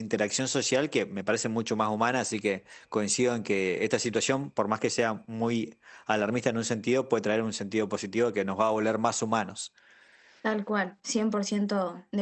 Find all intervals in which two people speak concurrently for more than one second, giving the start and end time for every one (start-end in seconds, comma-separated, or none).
none